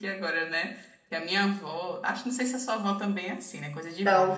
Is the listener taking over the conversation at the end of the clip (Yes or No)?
No